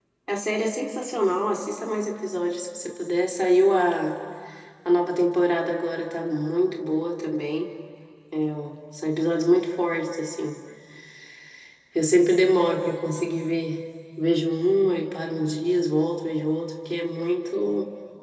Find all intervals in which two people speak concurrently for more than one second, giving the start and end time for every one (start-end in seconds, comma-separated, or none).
none